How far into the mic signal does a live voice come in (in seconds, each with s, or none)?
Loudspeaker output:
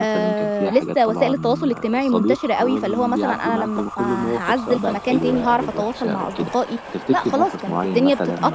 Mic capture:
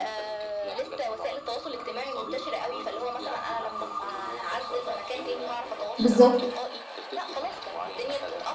6.0 s